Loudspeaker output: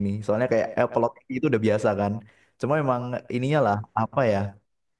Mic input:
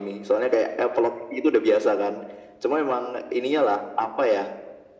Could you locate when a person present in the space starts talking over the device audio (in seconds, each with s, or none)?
none